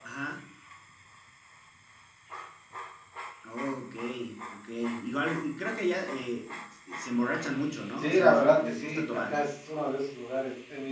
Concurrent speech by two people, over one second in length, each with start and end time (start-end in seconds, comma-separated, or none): 8.0-9.4